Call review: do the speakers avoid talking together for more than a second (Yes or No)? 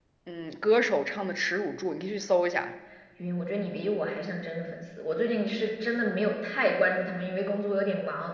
Yes